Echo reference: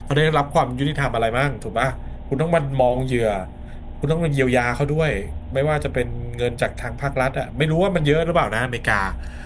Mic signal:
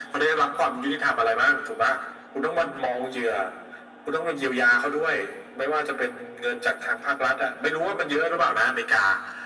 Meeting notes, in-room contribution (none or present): none